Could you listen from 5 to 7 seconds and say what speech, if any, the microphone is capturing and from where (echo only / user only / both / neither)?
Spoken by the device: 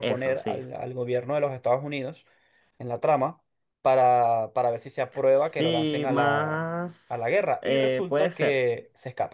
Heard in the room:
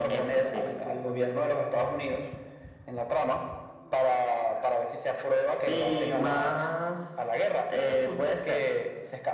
echo only